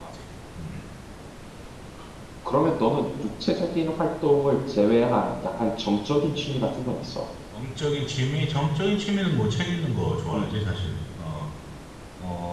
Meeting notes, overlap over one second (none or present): none